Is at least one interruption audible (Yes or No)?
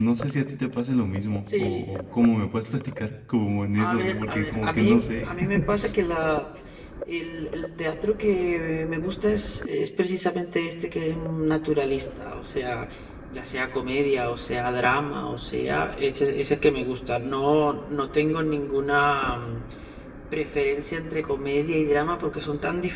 Yes